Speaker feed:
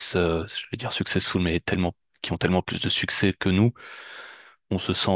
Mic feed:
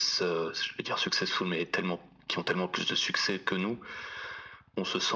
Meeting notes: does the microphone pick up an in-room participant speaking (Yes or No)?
No